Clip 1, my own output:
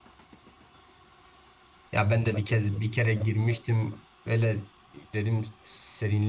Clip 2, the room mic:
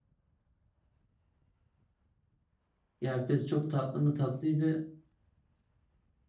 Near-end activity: present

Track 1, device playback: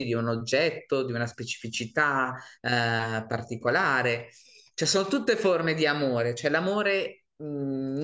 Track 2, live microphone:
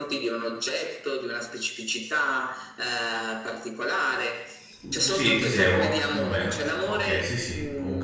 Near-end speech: present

